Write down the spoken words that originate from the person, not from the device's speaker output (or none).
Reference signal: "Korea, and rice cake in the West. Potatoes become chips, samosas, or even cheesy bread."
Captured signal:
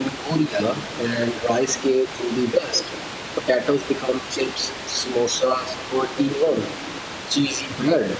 none